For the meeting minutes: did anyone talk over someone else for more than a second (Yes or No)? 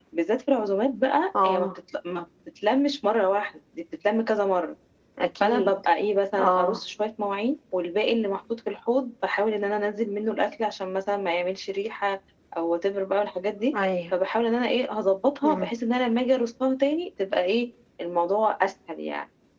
No